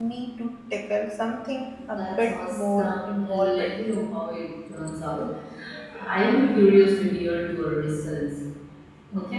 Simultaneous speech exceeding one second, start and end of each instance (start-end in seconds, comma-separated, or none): 2.0-3.6